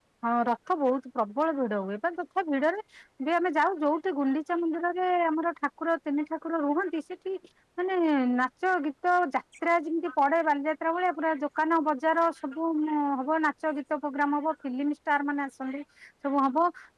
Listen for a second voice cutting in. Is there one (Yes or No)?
No